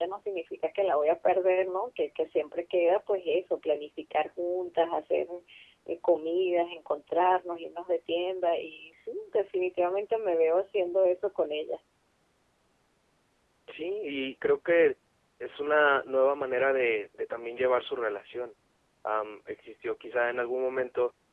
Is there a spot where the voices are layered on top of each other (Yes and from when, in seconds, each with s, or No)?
No